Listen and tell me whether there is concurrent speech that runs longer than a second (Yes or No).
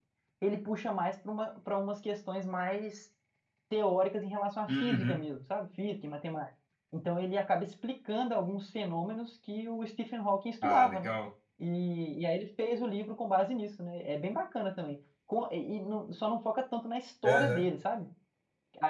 No